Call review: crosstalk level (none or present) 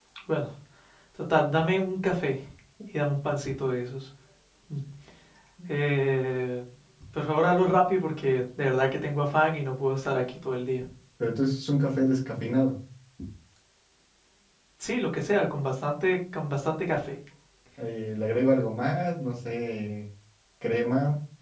none